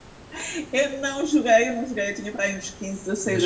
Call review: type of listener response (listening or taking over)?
taking over